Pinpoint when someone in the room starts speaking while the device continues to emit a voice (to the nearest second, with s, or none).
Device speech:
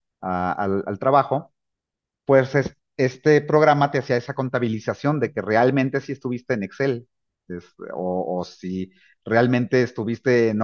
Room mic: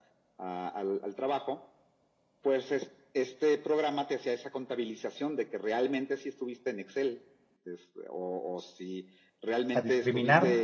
10 s